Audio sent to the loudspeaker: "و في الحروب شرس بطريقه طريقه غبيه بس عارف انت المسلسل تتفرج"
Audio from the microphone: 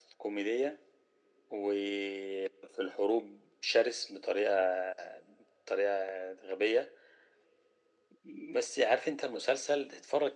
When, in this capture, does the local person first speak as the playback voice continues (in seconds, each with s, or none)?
none